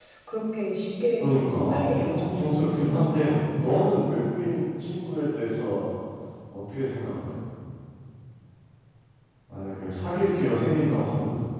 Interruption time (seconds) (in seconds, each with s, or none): 1.2 s